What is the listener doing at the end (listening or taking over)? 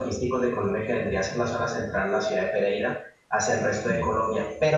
listening